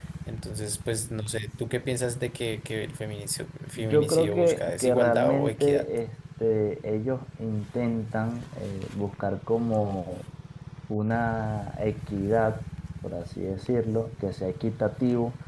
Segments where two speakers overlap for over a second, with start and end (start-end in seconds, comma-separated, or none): 3.8-5.9